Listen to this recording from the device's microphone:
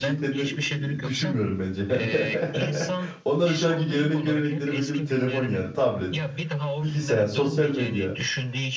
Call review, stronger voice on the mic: user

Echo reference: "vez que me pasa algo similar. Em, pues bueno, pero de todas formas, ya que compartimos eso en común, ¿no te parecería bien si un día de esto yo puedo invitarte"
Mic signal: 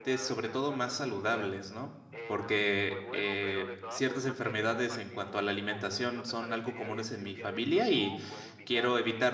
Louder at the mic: user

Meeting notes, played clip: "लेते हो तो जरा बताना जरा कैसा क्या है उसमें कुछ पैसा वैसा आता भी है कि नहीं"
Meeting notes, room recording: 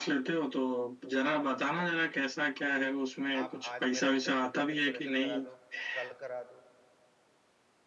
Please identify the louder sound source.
echo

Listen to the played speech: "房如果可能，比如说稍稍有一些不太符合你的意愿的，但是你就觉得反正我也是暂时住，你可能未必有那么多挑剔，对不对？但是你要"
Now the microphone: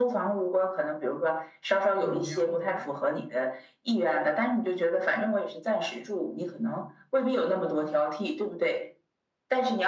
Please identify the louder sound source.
echo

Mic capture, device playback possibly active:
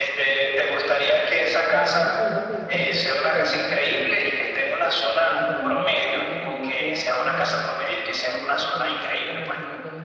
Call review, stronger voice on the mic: echo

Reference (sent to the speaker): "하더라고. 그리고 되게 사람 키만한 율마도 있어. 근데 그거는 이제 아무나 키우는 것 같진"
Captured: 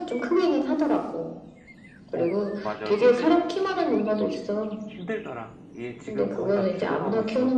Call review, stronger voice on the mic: echo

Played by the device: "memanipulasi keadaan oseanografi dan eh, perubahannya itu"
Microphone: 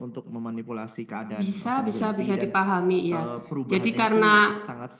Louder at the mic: user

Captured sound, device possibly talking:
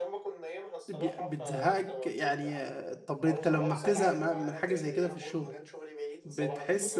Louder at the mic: user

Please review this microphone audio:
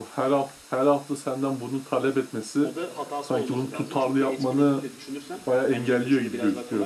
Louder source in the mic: echo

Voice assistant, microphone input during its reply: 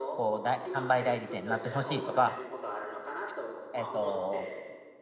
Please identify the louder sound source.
user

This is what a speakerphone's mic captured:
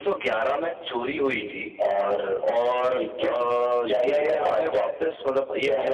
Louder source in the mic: echo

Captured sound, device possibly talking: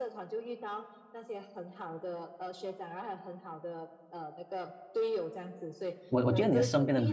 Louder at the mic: user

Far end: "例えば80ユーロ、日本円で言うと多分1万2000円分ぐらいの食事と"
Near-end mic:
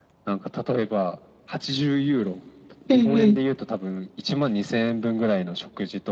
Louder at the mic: user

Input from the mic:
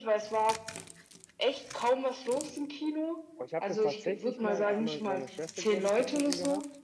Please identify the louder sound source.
echo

